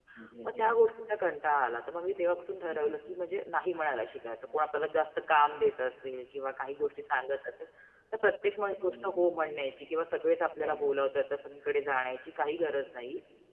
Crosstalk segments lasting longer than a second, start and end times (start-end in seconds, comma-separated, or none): none